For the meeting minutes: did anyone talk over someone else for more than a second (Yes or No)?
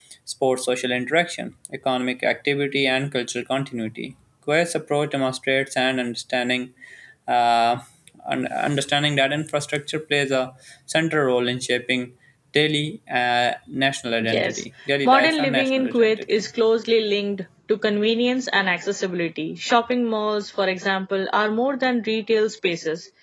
Yes